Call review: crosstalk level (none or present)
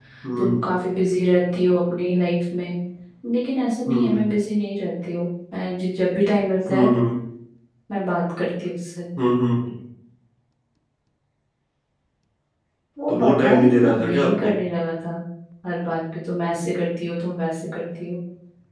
present